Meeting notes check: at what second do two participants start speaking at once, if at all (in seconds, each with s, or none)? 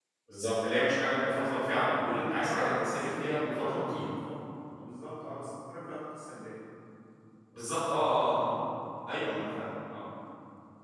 1.1 s